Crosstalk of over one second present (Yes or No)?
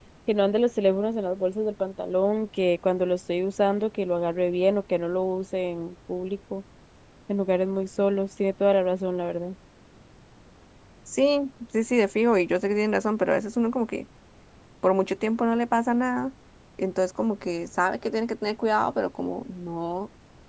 No